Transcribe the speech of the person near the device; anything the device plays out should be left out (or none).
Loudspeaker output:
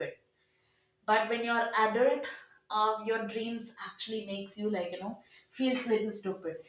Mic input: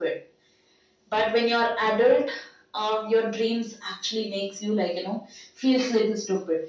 none